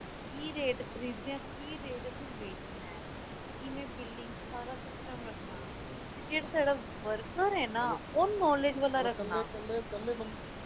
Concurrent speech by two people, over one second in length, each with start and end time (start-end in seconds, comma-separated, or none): none